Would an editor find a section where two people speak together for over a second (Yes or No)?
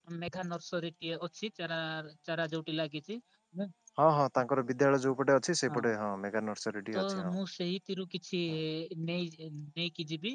No